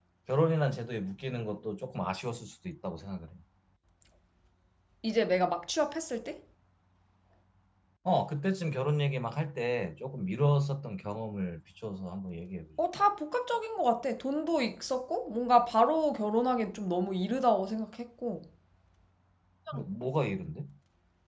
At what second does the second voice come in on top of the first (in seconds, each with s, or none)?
none